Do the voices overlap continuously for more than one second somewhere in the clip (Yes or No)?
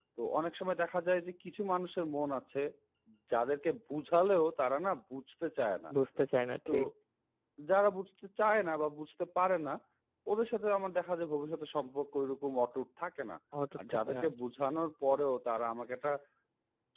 No